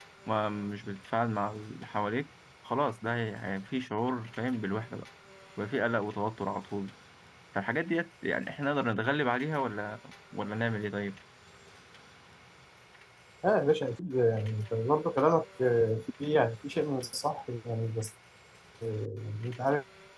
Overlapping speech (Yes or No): No